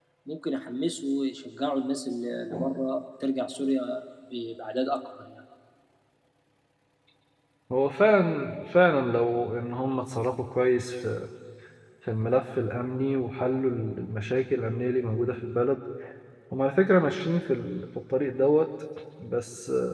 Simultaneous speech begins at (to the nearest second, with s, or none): none